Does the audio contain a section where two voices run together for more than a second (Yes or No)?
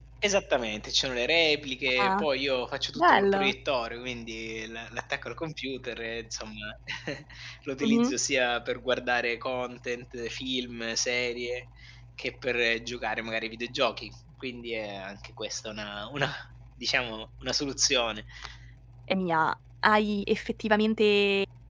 No